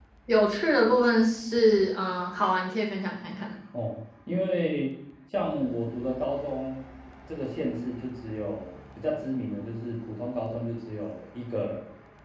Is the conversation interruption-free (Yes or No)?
Yes